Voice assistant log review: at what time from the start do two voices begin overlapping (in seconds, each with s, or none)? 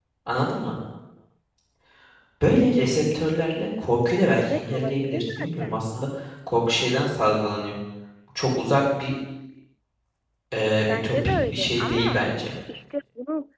4.4 s